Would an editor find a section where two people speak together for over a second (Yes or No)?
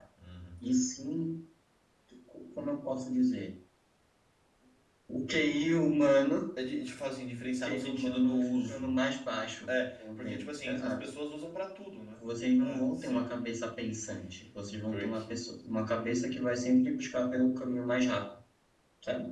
Yes